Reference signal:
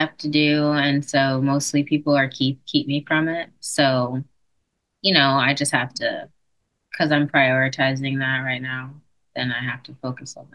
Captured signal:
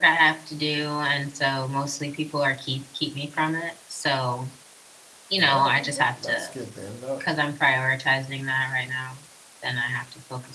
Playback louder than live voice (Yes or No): Yes